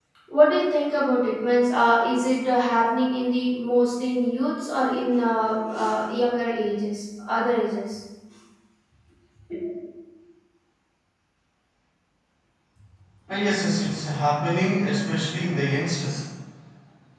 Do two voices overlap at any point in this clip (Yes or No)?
No